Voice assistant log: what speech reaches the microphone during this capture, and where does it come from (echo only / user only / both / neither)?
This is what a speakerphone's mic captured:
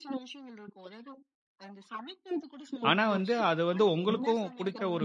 both